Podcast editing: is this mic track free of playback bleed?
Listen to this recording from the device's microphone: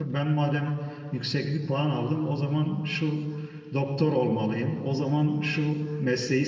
Yes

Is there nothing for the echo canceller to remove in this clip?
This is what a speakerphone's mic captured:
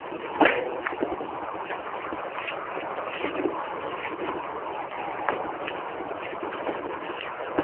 Yes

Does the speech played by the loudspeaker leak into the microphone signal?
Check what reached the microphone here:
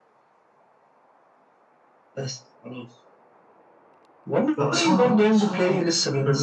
Yes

